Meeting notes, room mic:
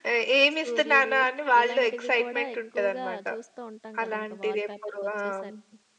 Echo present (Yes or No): Yes